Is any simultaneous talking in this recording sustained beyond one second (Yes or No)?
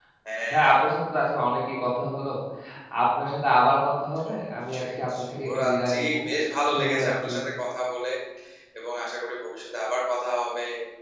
Yes